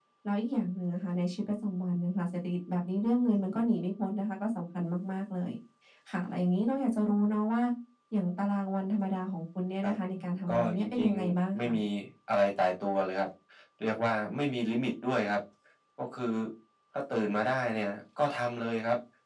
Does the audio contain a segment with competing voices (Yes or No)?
Yes